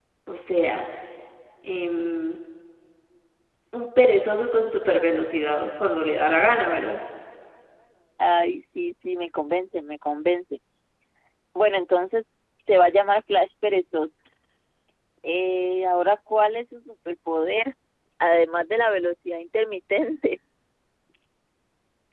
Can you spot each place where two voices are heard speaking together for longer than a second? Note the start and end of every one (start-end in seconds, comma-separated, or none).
none